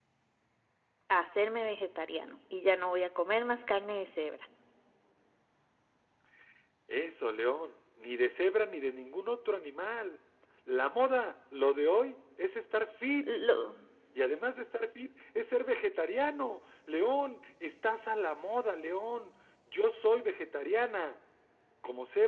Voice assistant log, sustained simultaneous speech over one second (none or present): none